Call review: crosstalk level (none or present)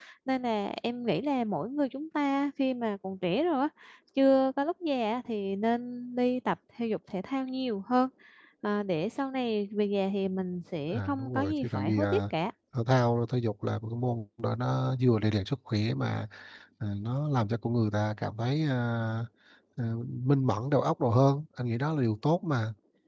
present